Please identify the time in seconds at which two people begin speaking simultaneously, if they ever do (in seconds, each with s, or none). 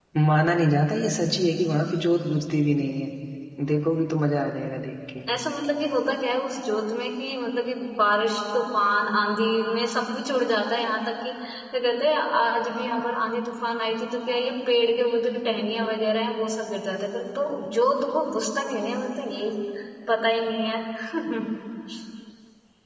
none